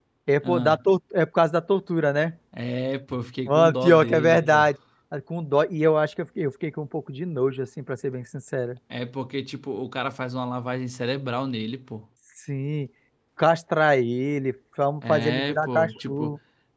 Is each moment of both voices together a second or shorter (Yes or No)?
No